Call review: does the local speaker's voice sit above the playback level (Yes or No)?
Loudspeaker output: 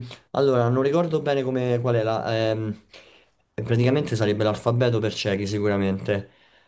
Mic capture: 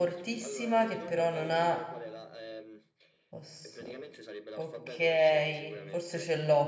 Yes